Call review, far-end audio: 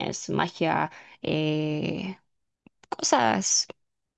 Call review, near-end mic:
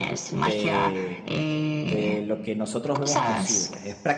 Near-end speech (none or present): present